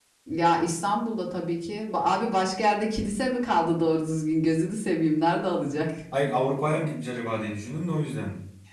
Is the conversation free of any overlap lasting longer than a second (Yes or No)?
Yes